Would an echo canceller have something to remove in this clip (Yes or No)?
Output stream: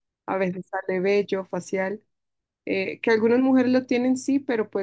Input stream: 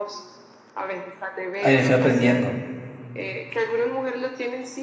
Yes